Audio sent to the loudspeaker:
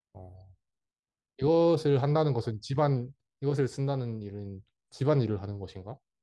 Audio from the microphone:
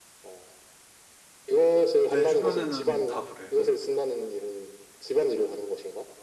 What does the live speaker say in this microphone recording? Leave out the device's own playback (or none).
내 주변에는 다 그래. 음.